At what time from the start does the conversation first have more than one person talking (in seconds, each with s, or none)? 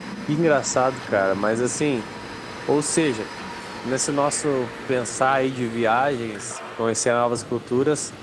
none